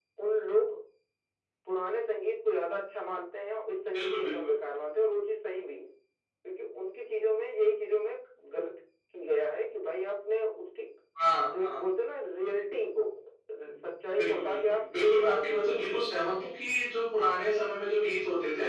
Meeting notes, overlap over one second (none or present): present